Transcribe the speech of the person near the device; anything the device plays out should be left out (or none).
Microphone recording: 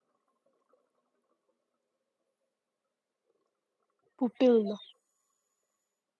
ꯄꯨꯄꯤꯜꯗꯣ